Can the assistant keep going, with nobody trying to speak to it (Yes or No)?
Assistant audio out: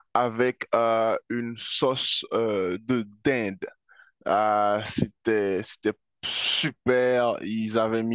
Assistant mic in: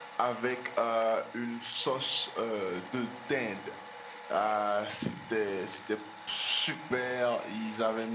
Yes